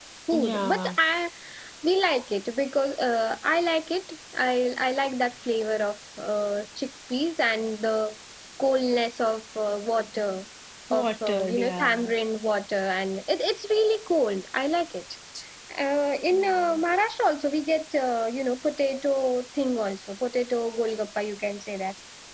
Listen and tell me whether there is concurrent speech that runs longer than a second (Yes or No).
Yes